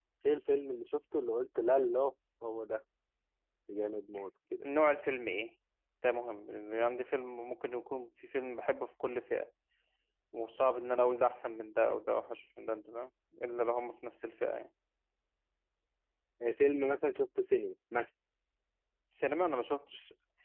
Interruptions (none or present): none